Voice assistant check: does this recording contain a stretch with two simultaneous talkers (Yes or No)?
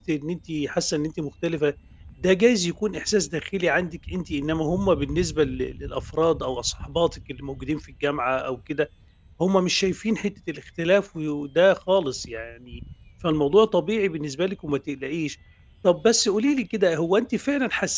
No